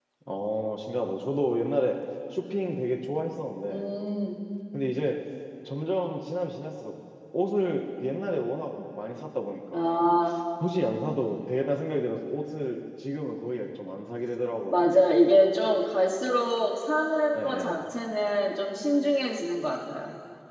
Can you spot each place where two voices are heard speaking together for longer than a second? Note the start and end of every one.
none

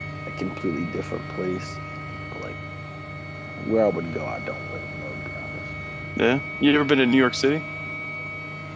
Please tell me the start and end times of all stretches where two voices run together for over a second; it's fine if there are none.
none

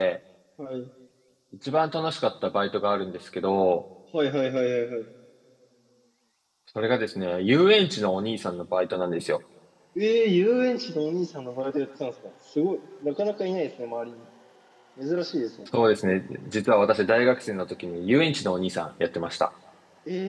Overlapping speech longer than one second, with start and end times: none

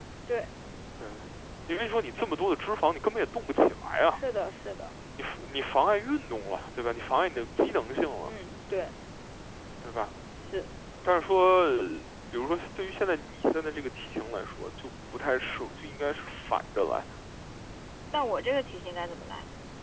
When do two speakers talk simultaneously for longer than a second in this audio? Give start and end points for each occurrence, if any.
none

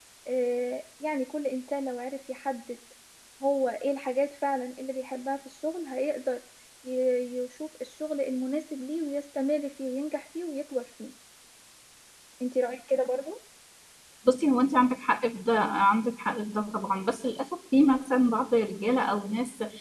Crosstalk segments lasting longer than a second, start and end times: none

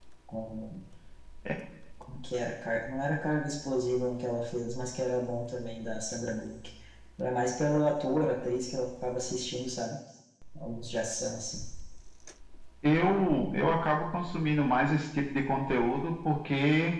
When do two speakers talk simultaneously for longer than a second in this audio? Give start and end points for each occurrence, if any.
none

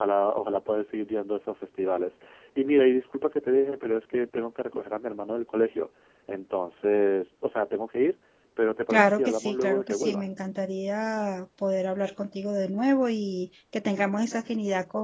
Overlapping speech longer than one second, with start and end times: 8.9-10.3

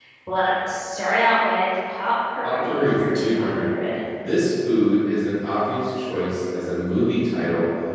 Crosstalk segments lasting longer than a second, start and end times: 2.4-3.7

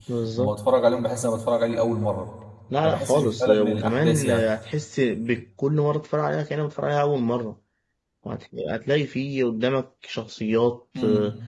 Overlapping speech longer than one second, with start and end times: 2.8-4.5

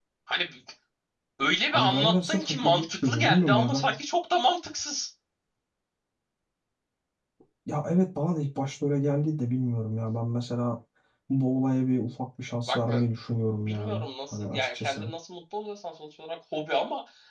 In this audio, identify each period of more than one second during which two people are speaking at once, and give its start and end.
1.7-4.0, 13.6-15.1

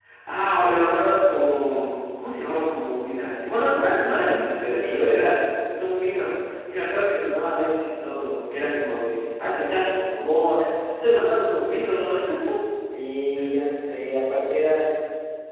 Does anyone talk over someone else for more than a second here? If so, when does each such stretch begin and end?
3.9-5.2

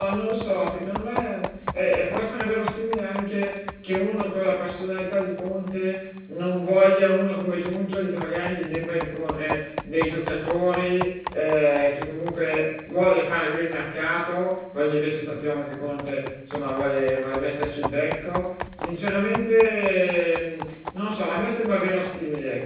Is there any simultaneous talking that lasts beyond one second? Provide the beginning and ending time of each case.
none

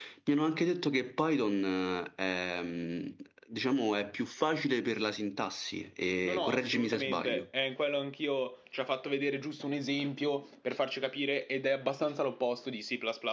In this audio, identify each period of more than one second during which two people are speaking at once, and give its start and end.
6.2-7.5

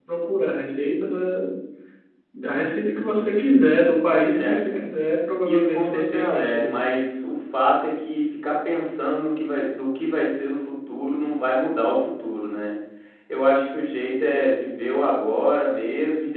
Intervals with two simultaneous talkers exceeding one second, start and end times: 5.4-6.8

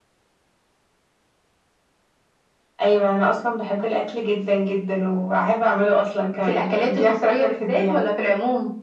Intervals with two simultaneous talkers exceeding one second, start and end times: 6.4-8.0

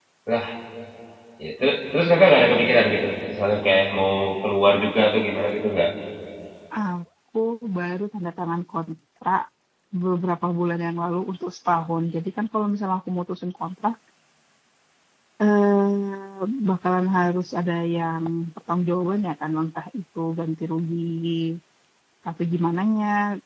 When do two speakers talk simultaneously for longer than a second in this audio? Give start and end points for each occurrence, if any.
none

